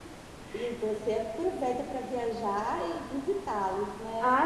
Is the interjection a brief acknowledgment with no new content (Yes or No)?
No